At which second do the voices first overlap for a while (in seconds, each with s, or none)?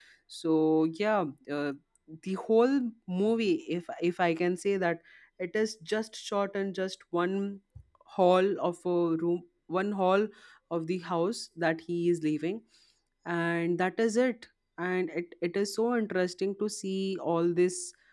none